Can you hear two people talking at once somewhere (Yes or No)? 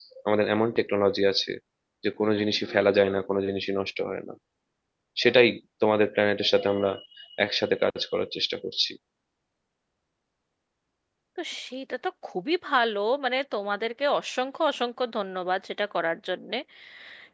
No